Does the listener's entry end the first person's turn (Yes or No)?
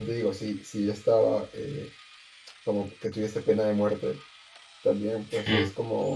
No